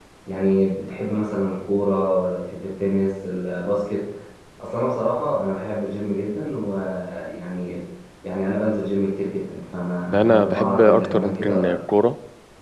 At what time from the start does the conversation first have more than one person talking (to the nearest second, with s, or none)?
10 s